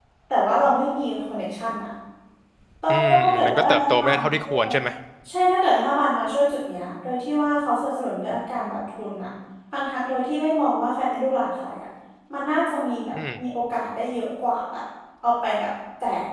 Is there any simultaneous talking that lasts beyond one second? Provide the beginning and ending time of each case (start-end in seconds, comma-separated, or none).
2.9-4.6